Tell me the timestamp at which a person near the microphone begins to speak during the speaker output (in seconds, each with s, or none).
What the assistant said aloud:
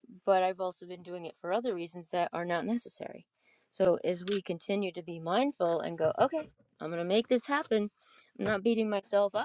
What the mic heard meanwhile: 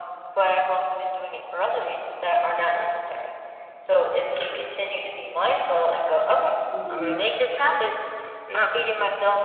6.7 s